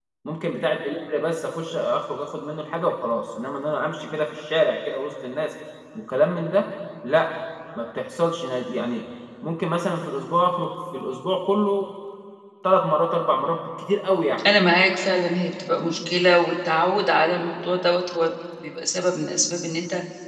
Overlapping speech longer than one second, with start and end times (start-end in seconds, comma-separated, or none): none